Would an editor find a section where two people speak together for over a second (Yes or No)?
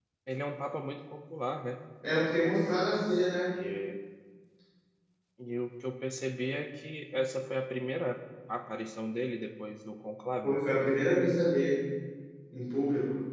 No